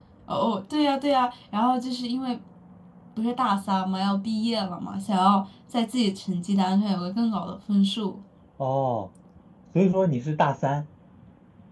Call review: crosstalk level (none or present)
none